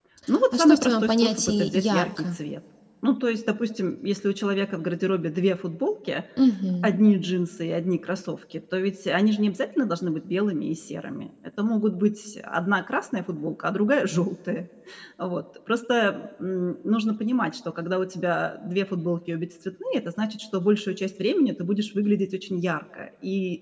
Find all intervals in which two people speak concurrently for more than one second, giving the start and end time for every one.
0.5-2.4

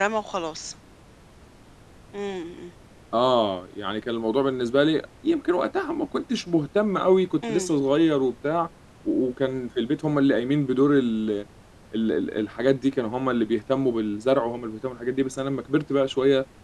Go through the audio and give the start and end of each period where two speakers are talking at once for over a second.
none

